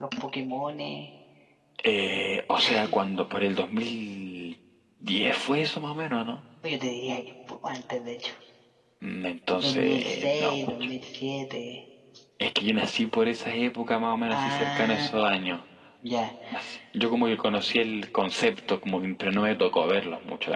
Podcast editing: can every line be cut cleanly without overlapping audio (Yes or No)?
No